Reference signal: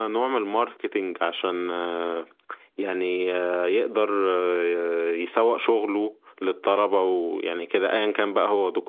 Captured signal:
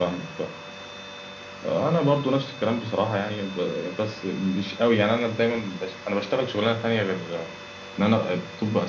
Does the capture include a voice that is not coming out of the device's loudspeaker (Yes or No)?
Yes